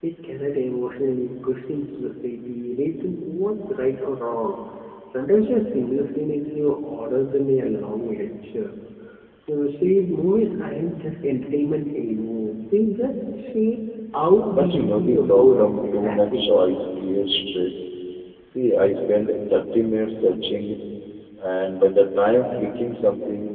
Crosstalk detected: Yes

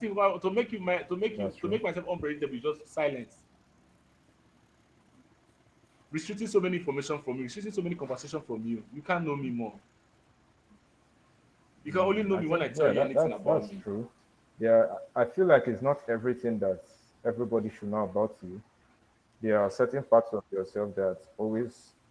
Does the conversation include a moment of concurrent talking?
Yes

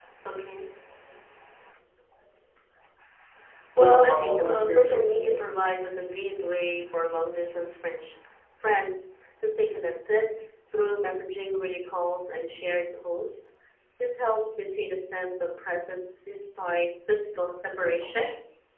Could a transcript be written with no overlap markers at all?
No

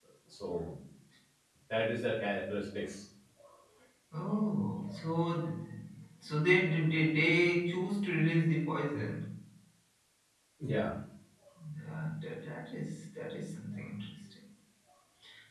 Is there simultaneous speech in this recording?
No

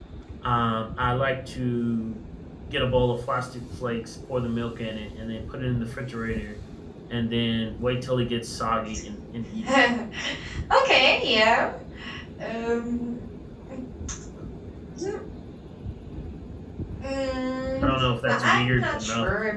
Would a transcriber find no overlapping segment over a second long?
No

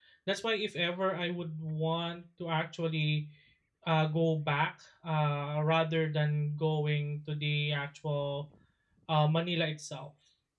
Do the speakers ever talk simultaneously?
No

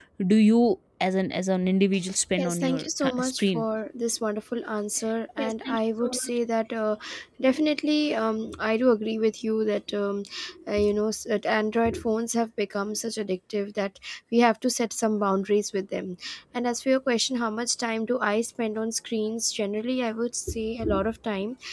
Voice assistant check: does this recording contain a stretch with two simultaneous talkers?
Yes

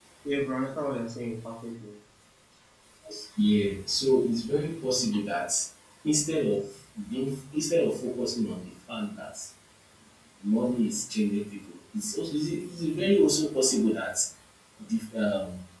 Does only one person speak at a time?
Yes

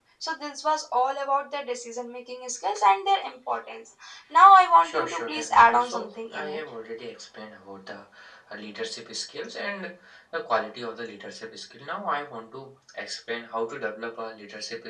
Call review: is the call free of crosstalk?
No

